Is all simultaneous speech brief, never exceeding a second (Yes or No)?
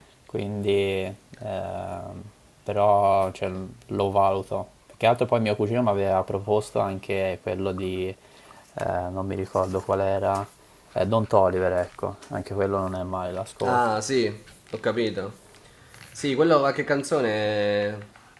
Yes